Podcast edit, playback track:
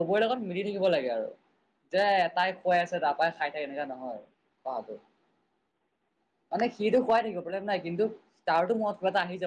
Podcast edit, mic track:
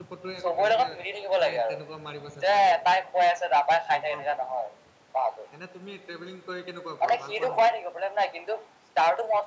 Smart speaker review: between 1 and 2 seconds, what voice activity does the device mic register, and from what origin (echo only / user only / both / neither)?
both